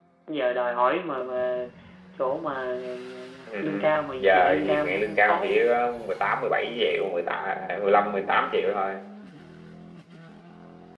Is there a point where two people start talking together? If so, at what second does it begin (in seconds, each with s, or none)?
3.6 s